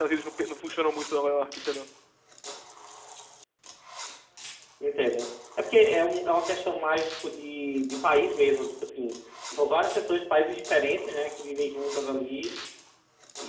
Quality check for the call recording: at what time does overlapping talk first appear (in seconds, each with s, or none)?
none